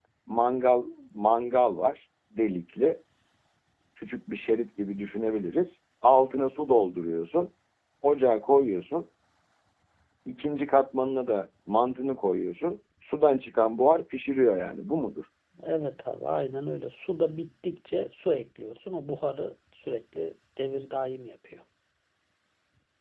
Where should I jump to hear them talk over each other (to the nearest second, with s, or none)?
none